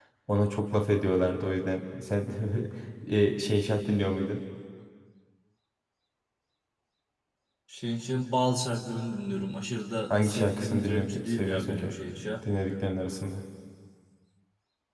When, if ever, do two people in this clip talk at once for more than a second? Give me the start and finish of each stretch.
10.1-11.9

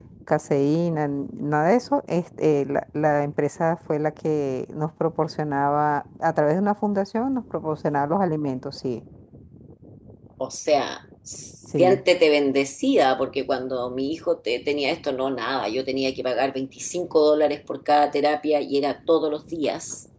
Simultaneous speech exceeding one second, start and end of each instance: none

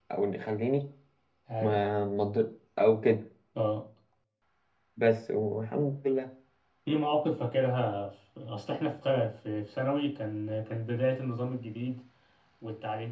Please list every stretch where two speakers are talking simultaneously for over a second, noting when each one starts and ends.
none

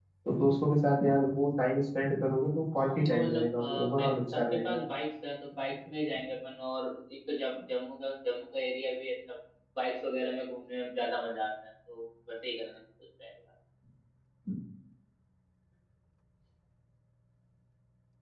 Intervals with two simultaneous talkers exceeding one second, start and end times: 2.7-4.8

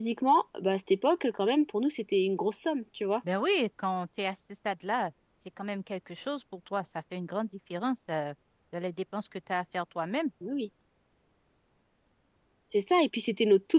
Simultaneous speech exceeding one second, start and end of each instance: none

